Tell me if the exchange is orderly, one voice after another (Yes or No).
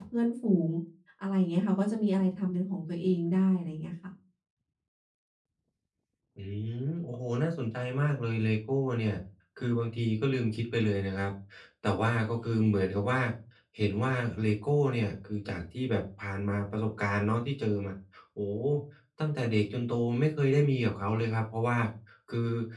Yes